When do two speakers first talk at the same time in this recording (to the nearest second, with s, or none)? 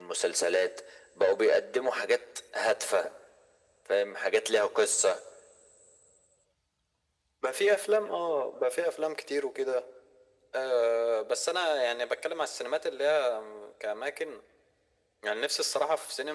none